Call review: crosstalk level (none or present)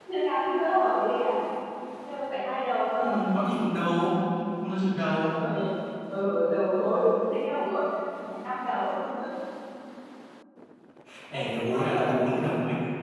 present